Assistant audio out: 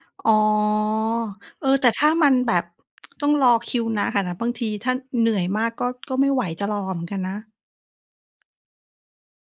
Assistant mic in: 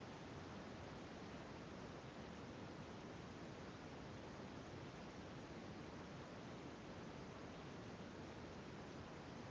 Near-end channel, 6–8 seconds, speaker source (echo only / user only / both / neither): neither